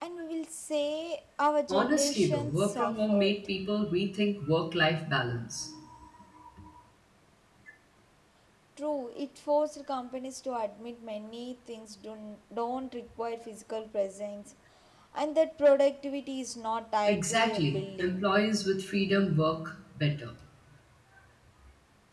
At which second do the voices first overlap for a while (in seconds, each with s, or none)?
1.7 s